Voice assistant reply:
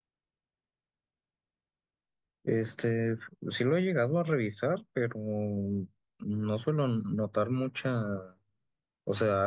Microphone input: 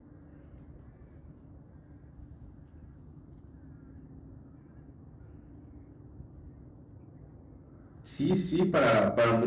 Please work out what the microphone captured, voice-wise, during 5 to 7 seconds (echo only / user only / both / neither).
neither